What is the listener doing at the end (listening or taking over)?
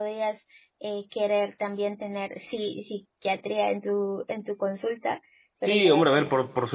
taking over